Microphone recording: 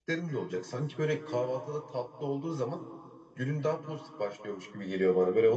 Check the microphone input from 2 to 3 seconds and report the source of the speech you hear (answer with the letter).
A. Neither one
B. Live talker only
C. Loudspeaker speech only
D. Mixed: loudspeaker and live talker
B